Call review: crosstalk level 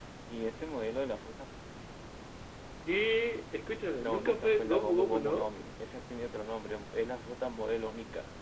present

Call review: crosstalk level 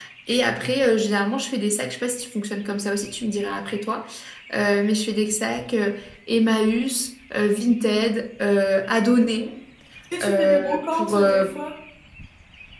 present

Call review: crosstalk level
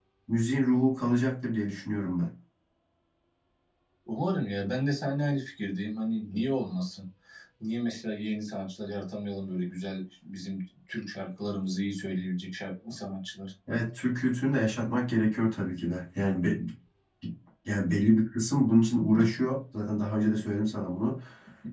none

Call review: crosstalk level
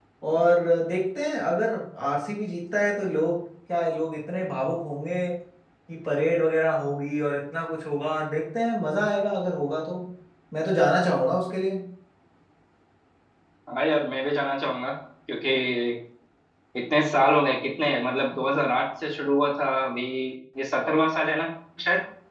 none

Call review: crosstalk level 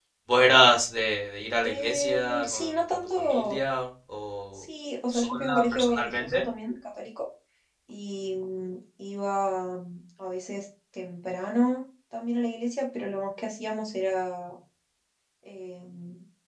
present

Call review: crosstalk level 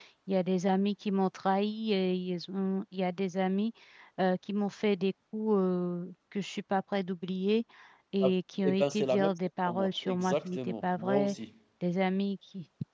present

